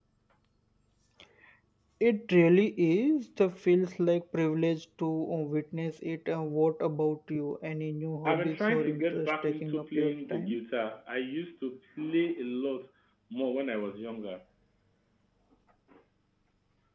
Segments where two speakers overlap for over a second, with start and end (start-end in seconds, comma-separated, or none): 8.2-10.6